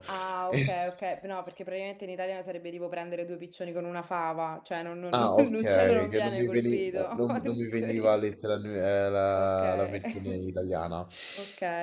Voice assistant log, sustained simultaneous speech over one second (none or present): present